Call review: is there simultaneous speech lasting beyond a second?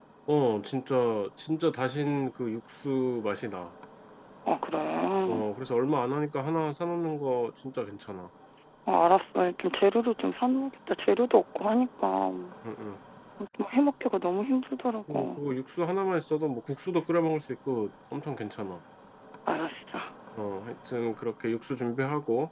No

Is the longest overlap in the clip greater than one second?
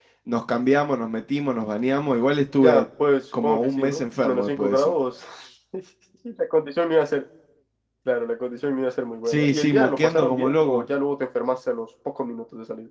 Yes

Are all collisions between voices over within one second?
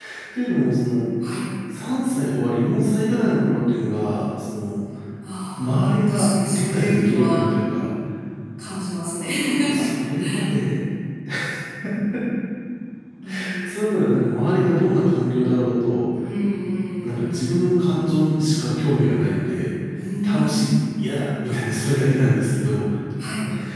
No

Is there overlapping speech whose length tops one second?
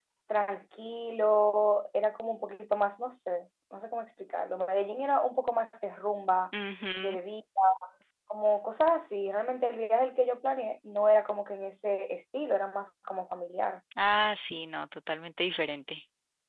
No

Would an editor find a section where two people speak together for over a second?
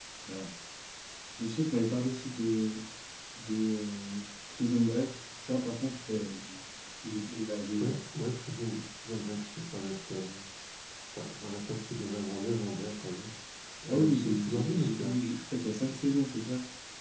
Yes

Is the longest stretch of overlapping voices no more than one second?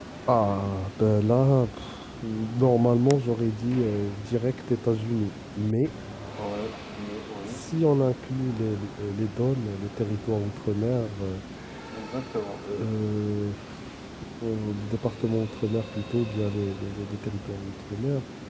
Yes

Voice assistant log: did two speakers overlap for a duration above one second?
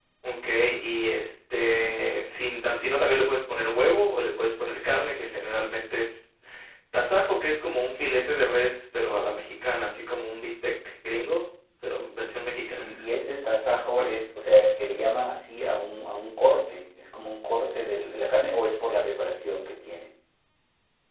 No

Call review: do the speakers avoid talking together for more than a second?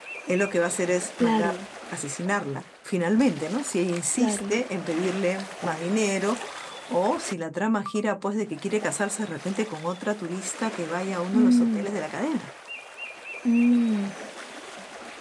Yes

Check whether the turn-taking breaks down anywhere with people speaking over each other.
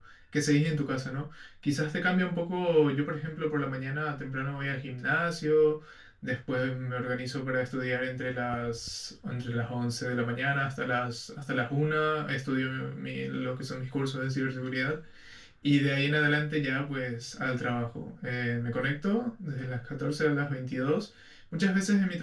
No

